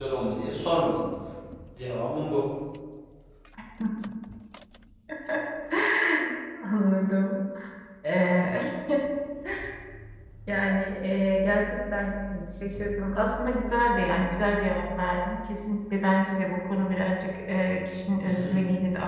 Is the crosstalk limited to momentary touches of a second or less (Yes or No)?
Yes